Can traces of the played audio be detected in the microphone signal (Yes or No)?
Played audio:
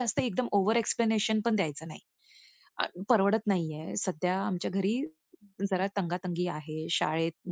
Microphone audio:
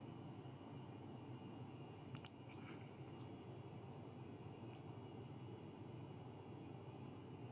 No